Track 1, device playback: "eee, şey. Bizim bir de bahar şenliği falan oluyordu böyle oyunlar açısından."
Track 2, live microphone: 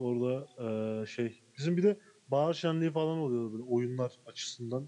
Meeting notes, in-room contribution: none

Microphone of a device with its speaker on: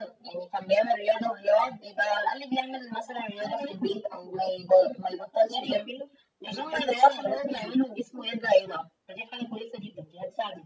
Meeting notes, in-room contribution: none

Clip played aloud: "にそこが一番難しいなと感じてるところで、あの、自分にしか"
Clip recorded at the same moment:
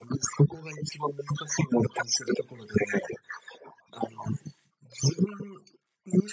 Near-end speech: none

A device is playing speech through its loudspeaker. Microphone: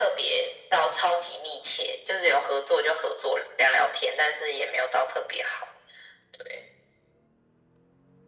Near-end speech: none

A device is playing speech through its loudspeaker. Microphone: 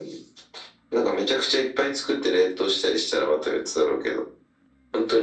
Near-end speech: none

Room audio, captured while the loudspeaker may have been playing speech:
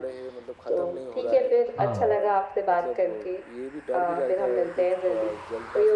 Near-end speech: present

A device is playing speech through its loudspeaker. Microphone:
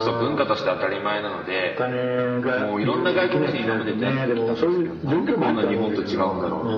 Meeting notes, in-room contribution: present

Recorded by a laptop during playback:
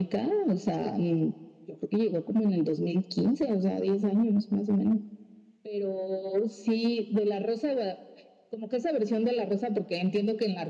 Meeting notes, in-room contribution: none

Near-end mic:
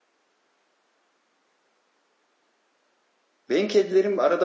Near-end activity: present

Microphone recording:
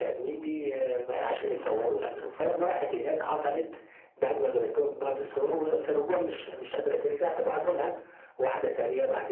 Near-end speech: none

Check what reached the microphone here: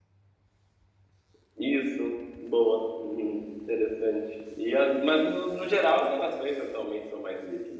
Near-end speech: none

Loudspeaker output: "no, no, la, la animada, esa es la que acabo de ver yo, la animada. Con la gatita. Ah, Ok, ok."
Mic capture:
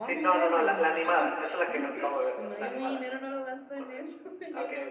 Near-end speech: present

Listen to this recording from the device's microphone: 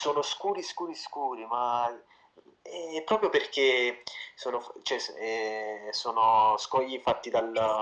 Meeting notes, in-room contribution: none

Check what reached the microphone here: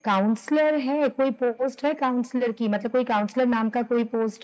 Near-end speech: none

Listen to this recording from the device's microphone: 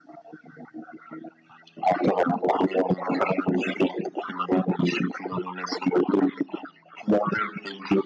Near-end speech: none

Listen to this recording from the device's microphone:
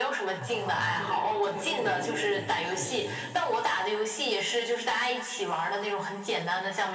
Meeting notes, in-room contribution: present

